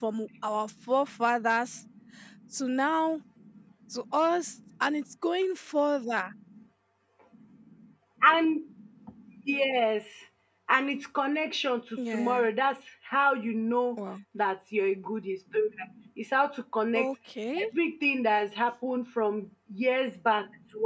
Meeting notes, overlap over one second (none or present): none